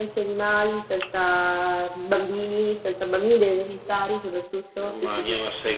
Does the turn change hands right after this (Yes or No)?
Yes